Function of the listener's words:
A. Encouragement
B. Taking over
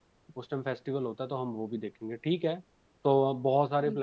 A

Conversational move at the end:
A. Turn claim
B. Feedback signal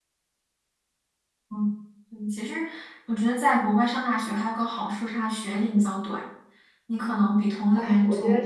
A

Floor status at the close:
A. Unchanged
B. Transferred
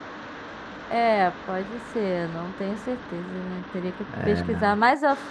A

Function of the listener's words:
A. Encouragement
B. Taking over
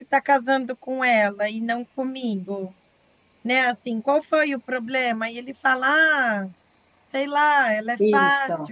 A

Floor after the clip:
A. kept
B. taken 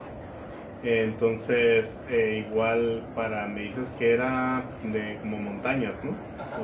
B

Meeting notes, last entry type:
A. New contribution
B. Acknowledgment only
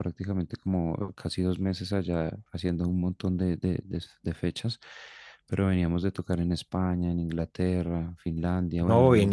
A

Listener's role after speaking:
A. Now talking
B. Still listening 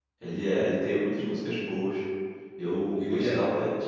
B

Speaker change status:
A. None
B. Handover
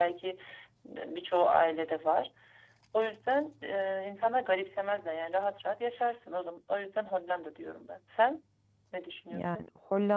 B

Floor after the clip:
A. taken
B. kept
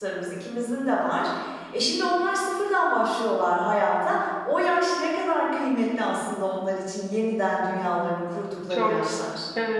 A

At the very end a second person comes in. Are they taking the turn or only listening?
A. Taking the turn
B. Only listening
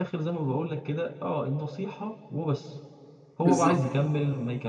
B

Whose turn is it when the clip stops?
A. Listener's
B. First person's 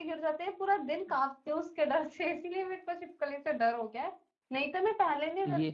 B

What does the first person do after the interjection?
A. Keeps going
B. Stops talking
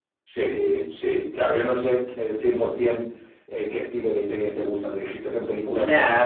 B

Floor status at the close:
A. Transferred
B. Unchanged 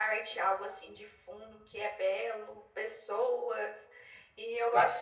A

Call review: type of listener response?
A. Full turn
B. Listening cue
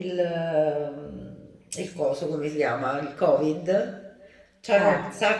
B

